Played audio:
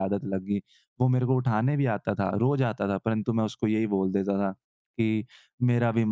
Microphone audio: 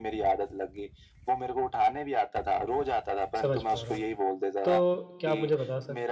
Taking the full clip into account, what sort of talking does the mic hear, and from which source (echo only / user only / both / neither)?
both